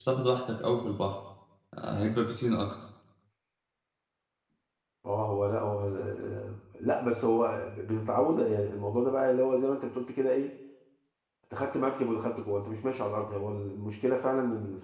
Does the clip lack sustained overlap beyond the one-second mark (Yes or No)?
Yes